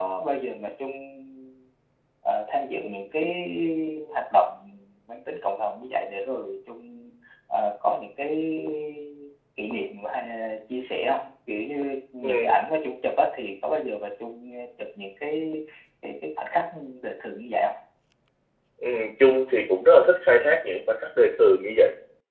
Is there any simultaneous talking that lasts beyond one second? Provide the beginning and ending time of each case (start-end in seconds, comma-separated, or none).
none